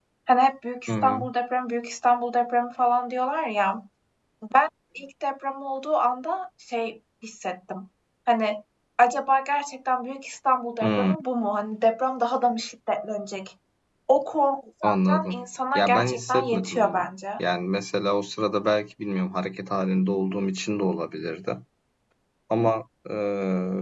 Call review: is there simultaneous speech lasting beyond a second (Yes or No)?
Yes